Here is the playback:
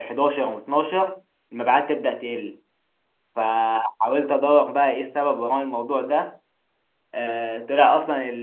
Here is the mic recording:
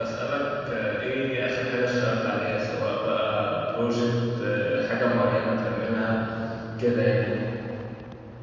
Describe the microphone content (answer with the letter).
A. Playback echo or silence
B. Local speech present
B